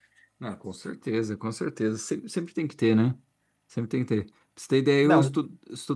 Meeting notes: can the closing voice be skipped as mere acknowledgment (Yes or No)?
Yes